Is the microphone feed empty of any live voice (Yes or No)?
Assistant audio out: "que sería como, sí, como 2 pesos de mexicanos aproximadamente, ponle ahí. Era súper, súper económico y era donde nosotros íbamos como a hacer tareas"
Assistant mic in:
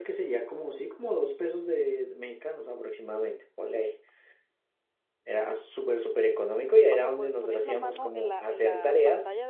No